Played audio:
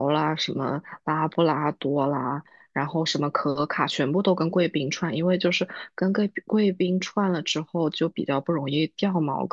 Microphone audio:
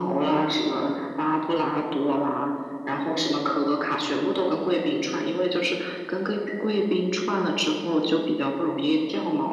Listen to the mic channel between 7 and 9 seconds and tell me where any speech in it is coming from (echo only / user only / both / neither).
echo only